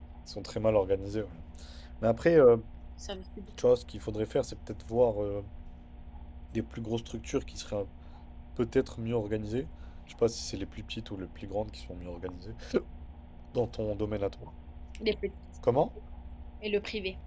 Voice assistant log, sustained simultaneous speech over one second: none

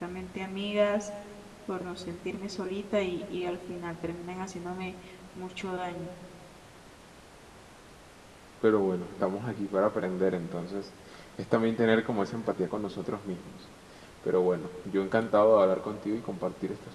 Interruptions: none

